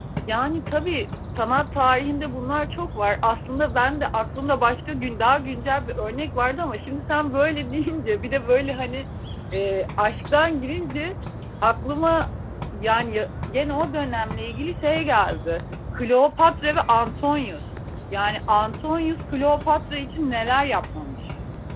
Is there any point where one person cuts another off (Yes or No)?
No